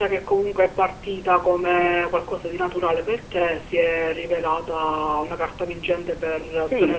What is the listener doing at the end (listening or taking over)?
taking over